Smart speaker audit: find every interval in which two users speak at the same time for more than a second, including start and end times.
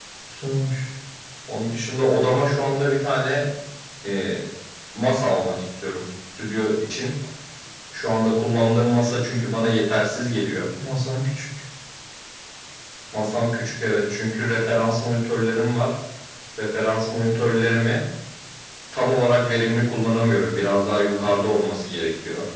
none

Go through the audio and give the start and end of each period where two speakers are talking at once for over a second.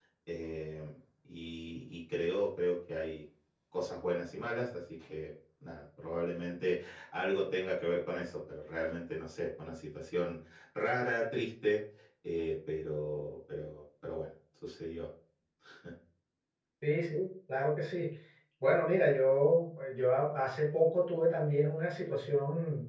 none

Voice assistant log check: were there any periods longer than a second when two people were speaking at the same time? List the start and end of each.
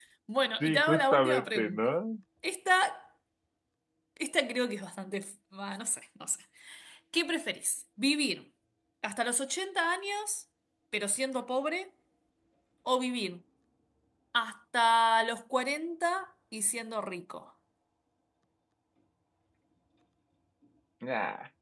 0.6-1.8

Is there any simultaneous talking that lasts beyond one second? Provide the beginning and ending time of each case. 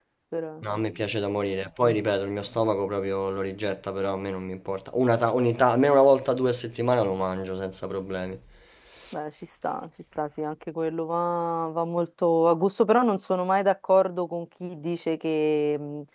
none

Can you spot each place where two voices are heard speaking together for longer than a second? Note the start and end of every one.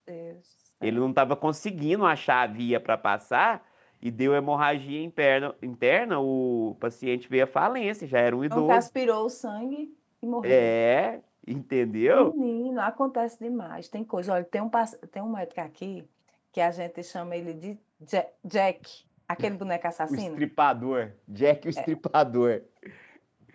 none

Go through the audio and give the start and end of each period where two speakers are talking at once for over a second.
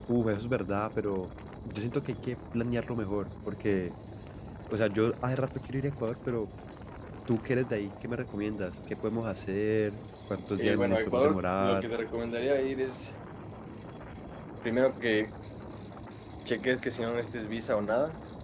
10.6-11.9

